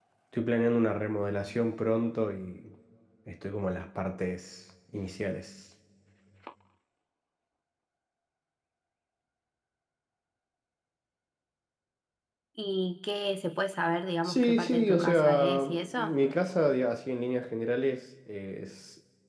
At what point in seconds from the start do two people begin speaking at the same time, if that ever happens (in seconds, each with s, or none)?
14.2 s